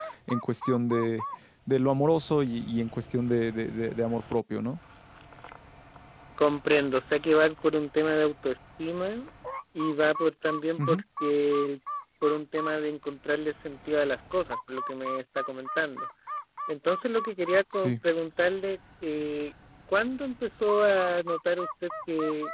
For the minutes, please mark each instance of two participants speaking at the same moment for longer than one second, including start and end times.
none

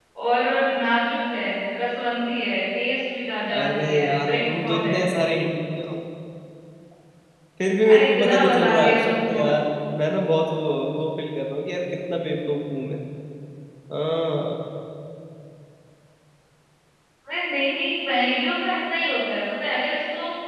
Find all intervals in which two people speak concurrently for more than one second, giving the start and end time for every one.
3.5-5.4, 7.9-9.4

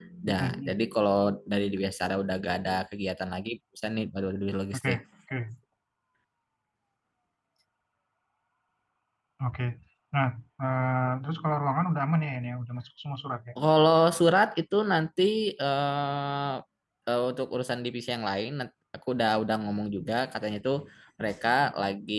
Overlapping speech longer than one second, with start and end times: none

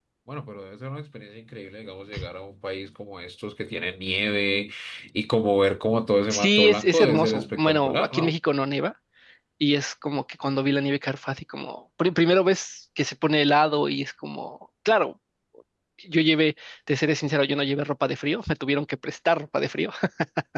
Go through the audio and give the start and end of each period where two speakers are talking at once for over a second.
6.3-8.3

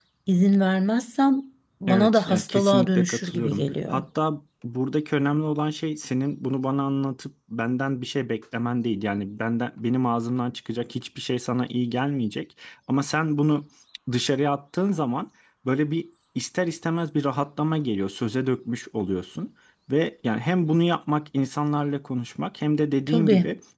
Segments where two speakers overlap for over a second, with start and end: 1.9-3.9

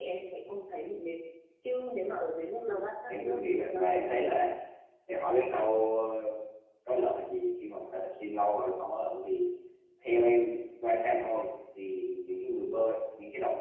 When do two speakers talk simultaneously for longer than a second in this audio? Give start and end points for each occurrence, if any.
2.7-4.4

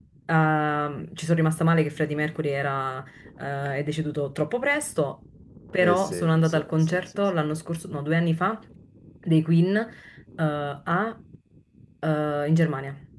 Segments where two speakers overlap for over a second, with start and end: 5.8-7.2

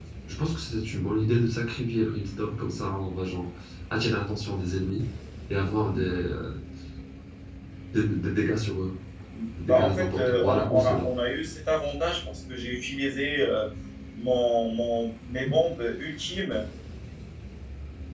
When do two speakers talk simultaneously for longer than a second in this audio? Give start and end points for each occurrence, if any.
9.6-11.1

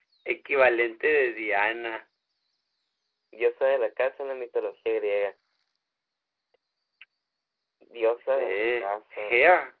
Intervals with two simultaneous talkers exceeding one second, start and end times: 8.1-9.3

